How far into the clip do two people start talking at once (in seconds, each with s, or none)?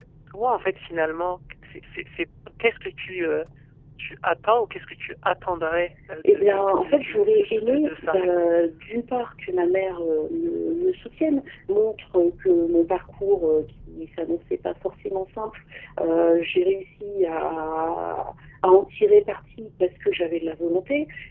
6.2 s